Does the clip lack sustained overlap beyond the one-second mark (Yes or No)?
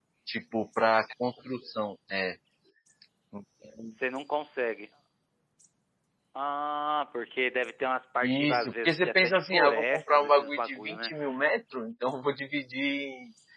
No